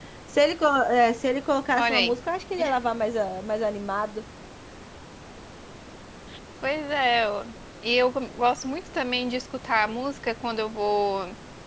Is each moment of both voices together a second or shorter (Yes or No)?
Yes